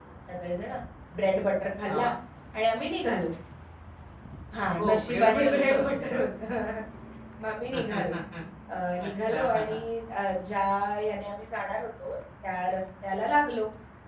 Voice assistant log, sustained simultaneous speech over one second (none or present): present